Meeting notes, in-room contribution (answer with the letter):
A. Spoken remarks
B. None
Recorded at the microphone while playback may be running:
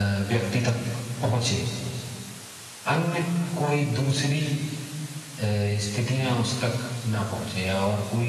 B